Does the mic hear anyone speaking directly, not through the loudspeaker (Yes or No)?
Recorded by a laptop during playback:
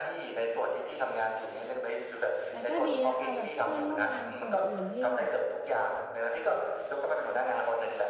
Yes